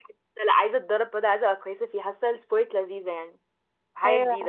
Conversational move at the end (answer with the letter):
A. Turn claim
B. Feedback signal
A